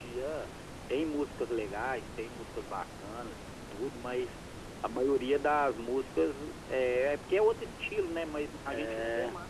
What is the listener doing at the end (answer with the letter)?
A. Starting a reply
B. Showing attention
B